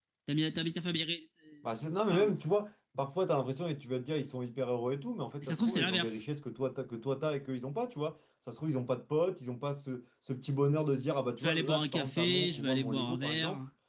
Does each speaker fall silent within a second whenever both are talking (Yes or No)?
No